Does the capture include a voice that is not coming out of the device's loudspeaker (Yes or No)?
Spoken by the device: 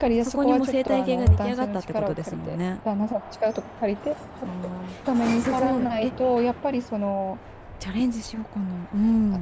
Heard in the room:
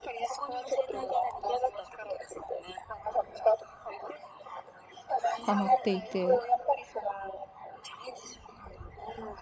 Yes